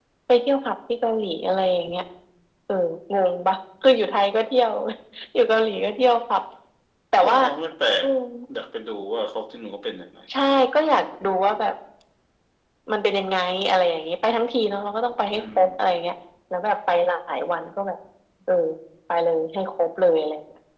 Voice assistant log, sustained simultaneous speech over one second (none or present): none